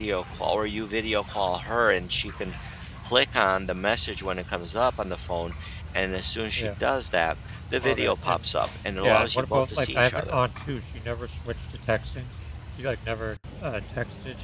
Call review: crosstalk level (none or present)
present